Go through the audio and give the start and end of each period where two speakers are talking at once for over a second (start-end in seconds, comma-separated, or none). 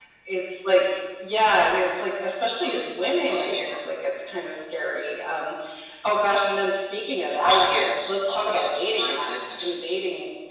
7.4-9.8